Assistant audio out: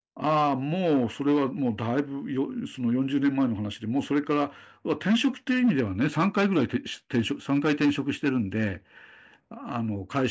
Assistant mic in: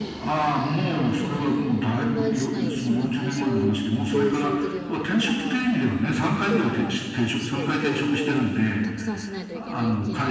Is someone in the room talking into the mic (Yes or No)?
Yes